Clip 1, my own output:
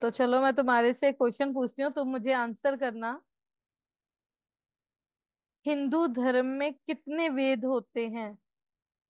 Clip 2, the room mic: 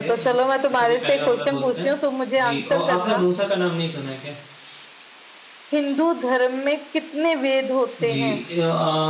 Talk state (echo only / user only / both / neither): both